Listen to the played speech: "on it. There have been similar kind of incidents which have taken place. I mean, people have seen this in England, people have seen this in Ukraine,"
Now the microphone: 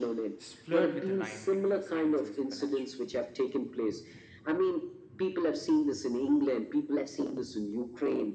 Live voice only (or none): s- flirt with the line between science and supernatural.